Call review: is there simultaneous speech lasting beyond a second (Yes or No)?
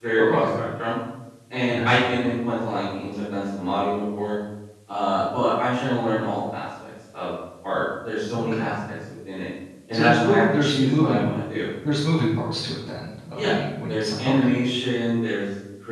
Yes